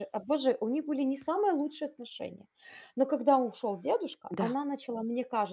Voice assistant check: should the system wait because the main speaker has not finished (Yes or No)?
Yes